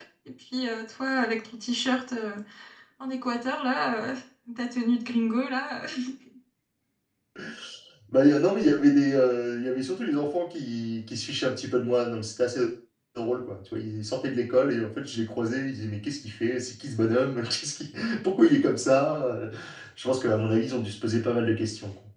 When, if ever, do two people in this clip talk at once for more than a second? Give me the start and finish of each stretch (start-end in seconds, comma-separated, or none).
none